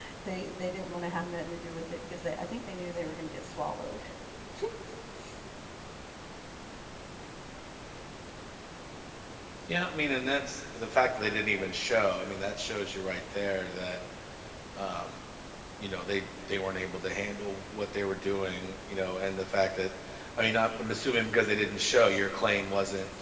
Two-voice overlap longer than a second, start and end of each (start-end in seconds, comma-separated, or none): none